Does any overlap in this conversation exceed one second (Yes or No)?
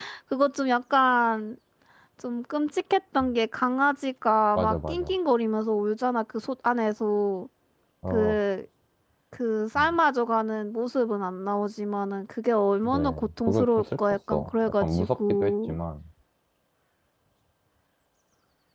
Yes